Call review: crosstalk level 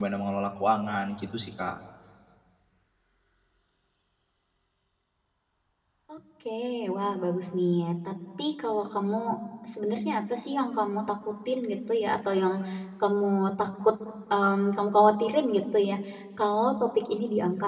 none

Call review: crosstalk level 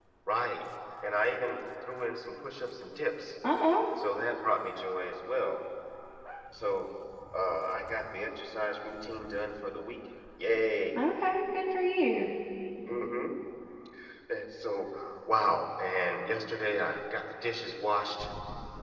none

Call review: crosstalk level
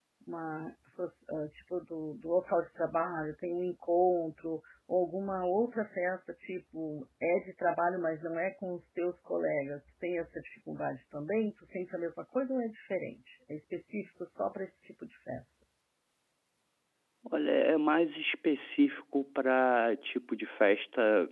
none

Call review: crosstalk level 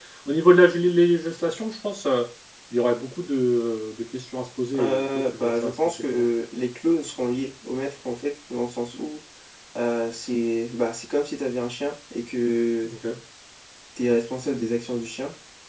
present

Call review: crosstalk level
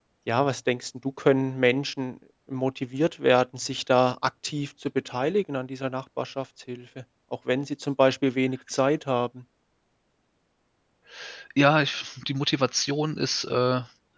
none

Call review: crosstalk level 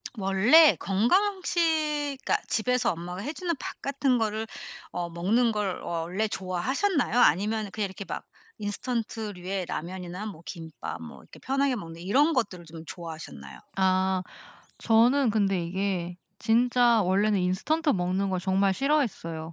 none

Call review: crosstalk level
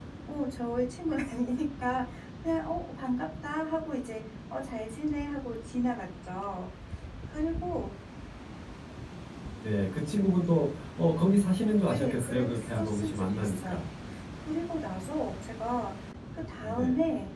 present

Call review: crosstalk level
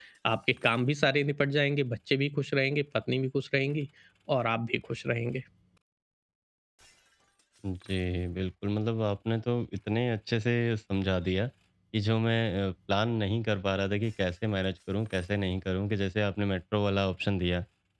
none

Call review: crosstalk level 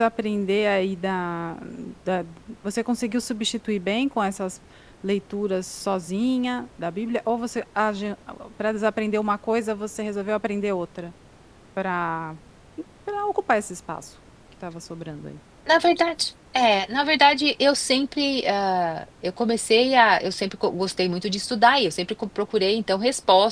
none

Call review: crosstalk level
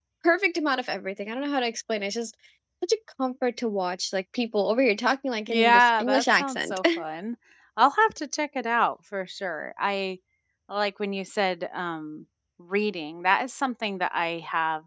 present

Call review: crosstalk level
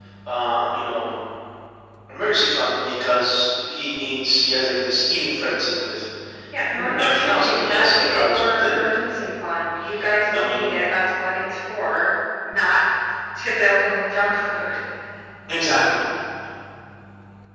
present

